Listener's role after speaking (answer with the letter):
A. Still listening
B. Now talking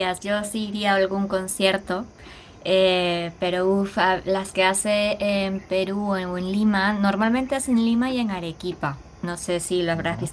A